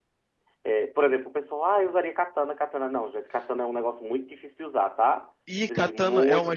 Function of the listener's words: taking over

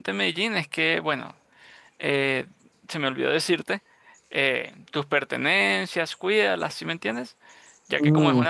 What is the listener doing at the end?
listening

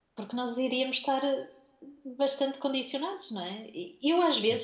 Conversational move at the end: listening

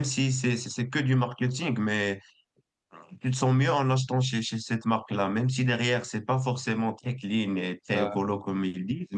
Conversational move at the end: listening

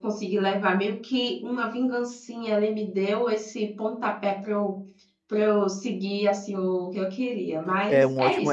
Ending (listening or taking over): taking over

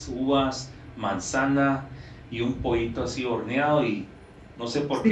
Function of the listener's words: taking over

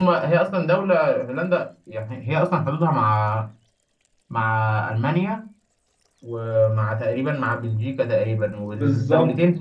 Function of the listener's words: listening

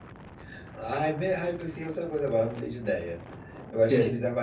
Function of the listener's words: listening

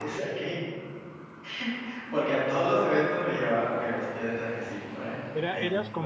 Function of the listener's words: taking over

